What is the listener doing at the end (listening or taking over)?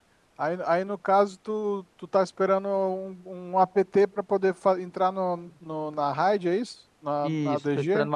taking over